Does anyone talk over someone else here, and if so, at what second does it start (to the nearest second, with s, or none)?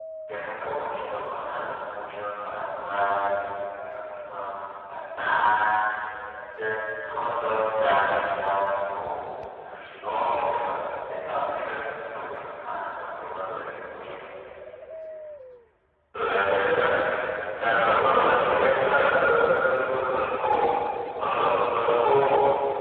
none